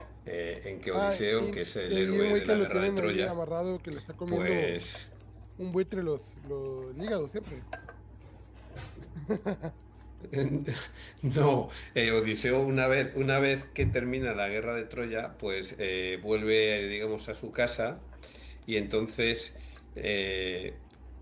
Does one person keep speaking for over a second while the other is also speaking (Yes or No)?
Yes